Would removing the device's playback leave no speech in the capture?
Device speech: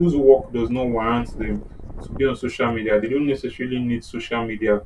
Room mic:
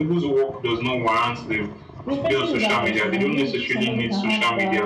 No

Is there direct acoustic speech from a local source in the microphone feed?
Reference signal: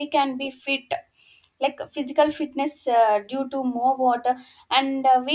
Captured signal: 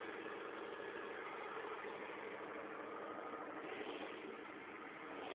No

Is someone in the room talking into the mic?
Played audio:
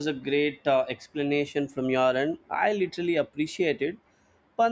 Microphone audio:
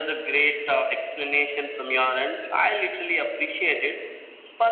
No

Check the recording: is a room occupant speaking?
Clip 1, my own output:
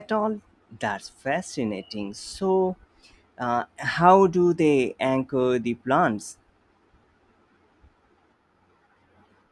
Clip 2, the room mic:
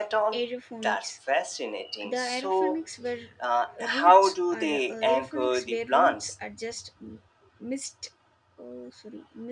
Yes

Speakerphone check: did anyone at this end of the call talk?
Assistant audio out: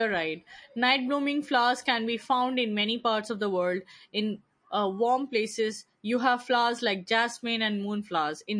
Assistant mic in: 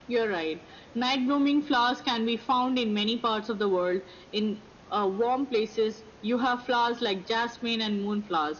No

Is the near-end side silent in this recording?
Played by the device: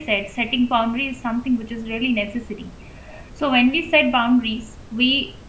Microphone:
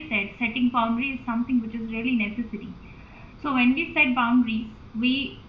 Yes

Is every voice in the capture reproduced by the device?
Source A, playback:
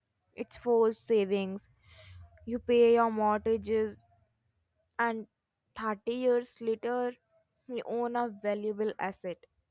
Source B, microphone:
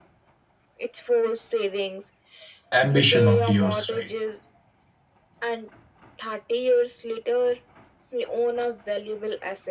No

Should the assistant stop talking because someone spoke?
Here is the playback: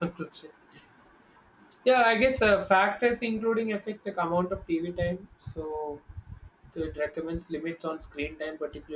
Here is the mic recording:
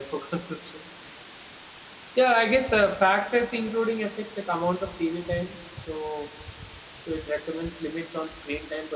No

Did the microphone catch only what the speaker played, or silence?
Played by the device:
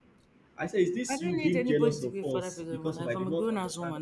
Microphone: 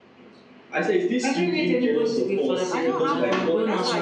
No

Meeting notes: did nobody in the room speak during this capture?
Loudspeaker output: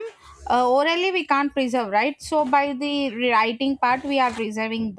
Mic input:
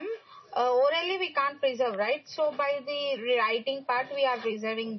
Yes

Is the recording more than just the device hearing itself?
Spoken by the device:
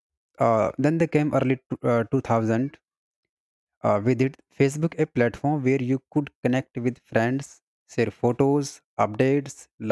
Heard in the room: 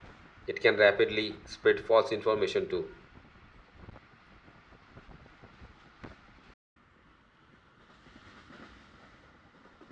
Yes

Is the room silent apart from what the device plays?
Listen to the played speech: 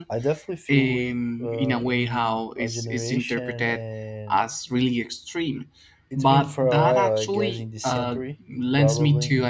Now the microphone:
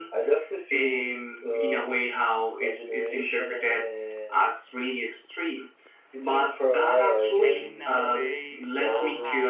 No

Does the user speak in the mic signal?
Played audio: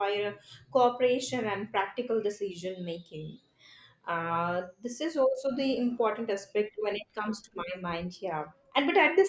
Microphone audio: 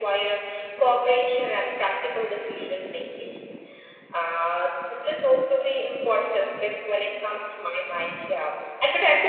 No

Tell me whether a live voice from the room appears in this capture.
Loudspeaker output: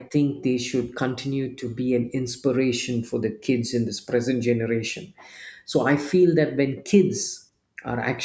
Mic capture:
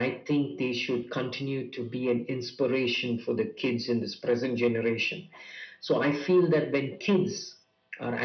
No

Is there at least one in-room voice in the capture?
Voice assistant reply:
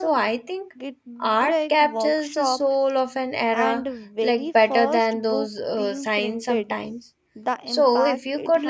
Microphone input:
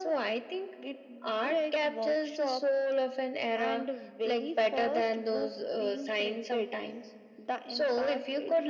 No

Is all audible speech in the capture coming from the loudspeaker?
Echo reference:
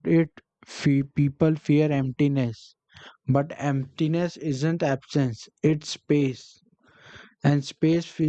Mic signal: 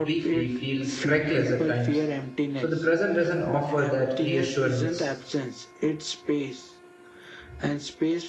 No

